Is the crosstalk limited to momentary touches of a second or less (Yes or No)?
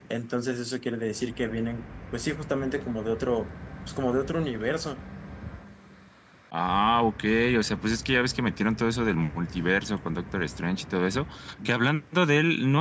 Yes